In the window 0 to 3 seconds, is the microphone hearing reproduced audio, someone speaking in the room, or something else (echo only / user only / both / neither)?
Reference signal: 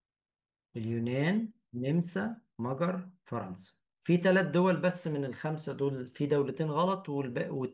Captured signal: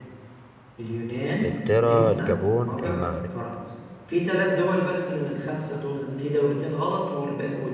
both